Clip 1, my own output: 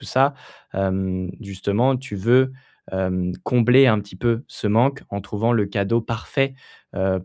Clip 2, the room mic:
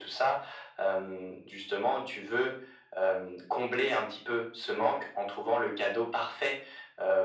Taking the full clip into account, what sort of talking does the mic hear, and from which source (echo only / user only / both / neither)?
echo only